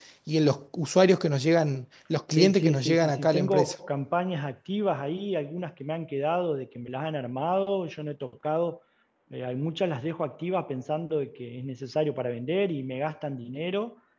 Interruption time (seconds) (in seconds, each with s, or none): 2.3 s